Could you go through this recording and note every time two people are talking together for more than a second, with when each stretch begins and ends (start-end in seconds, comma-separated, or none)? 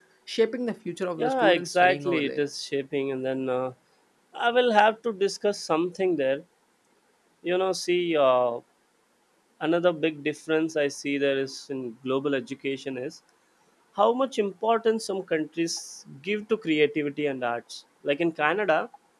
1.2-2.4